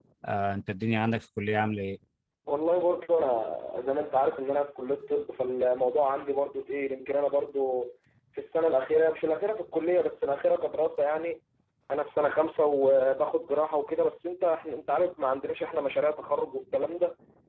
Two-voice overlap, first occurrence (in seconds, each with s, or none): none